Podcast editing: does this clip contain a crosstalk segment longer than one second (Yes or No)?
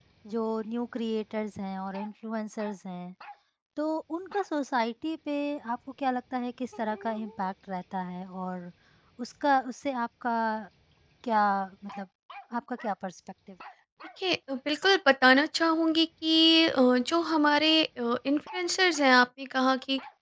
No